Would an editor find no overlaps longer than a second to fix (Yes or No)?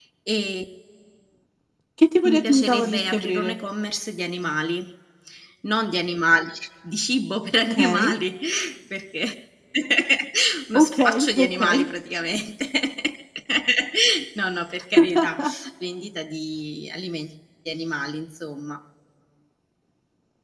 No